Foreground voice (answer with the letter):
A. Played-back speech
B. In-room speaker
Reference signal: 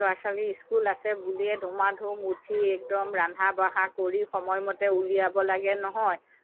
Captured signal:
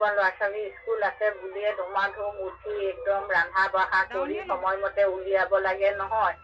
A